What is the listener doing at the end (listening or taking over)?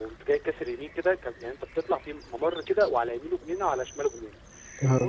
listening